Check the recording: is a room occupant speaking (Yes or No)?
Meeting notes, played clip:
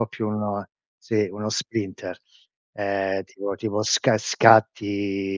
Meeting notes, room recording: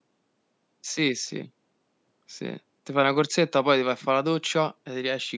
Yes